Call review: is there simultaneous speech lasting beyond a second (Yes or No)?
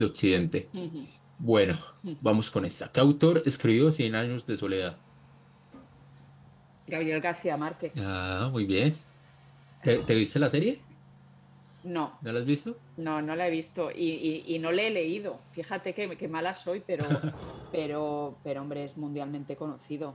No